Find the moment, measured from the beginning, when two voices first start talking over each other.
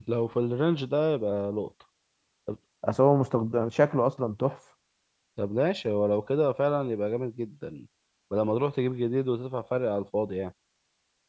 none

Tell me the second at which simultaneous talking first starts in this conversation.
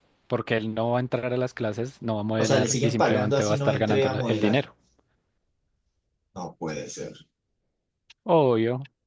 2.4 s

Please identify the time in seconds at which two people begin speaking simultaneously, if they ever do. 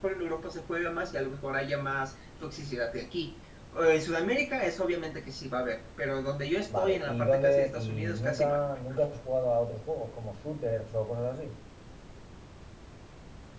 6.7 s

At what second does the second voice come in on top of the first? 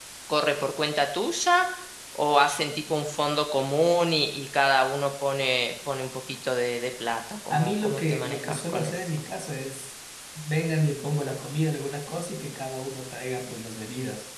7.5 s

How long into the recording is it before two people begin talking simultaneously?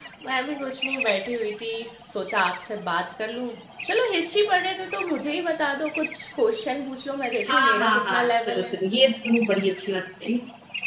7.5 s

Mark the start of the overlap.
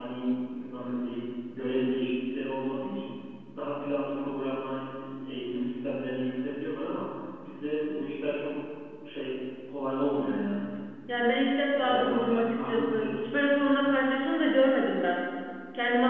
11.8 s

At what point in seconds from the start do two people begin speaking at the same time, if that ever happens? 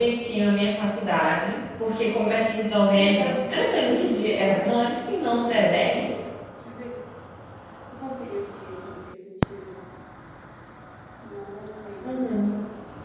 2.9 s

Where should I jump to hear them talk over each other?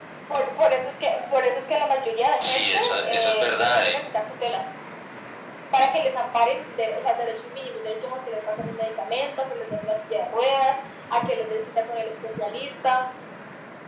2.4 s

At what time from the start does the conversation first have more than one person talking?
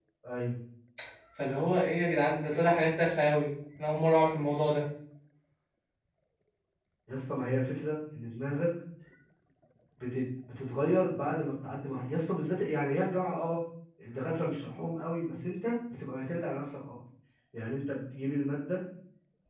none

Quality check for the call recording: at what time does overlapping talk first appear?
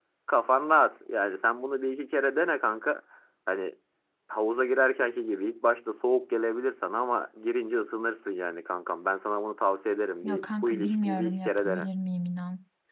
10.2 s

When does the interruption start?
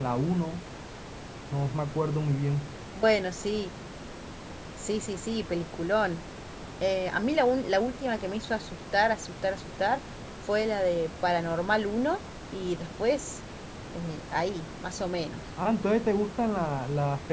none

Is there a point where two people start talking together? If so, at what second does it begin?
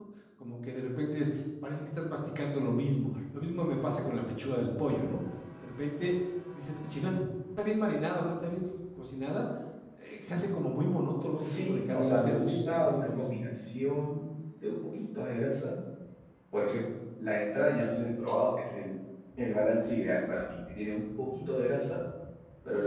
11.4 s

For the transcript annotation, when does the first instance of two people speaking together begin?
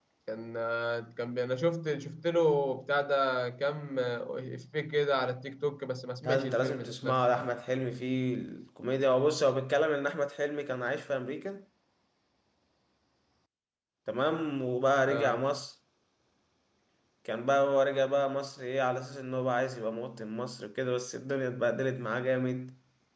6.2 s

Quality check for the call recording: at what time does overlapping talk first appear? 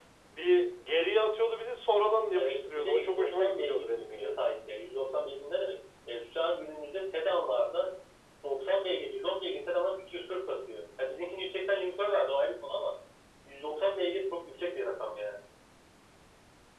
2.3 s

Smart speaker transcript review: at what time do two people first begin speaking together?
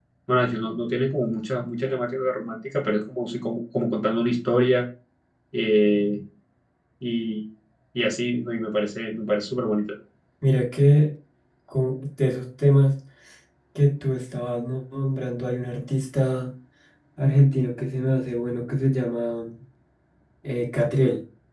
none

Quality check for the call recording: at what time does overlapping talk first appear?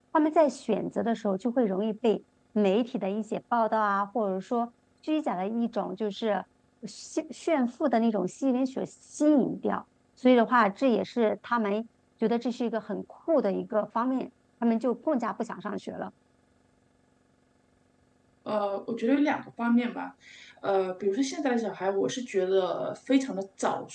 none

